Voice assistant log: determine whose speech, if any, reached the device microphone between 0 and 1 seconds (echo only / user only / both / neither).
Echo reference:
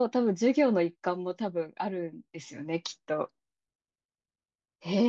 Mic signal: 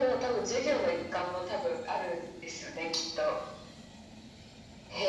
echo only